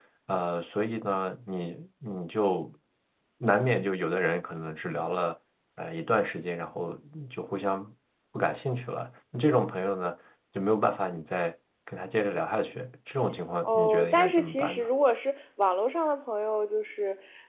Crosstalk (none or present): present